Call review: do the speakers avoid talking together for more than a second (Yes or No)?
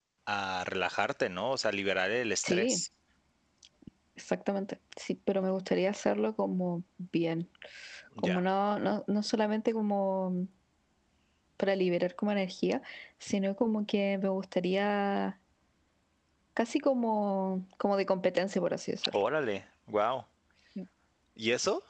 Yes